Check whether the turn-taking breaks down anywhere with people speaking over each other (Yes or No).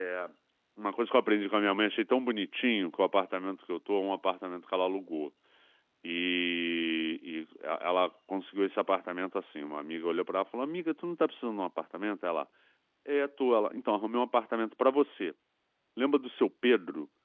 No